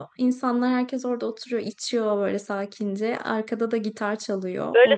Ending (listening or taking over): taking over